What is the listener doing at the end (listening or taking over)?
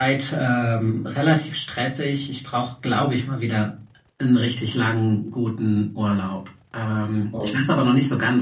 listening